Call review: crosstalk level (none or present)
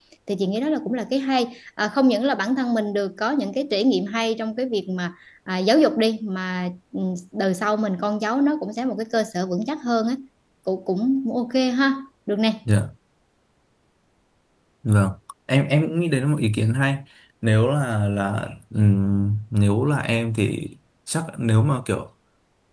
none